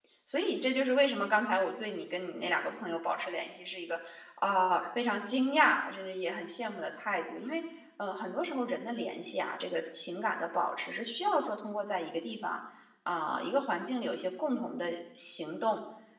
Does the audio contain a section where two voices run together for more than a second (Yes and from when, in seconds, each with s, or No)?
No